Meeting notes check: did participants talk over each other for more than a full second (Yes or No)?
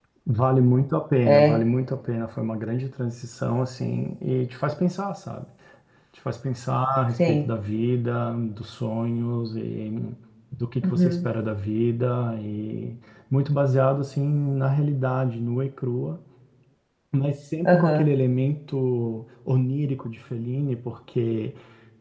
No